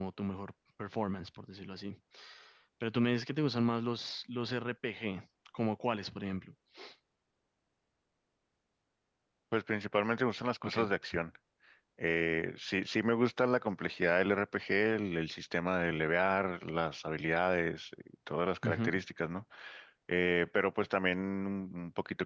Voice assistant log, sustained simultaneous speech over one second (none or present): none